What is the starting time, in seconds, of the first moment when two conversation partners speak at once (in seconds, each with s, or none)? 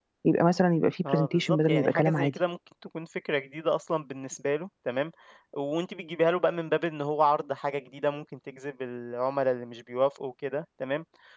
1.1 s